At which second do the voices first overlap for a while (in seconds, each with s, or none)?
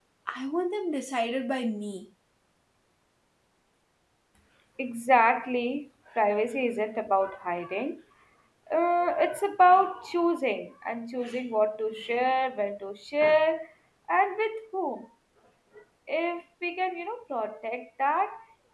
none